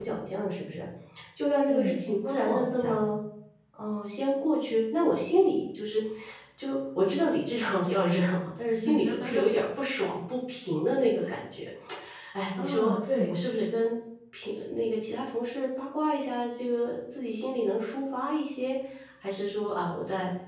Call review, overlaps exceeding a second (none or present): present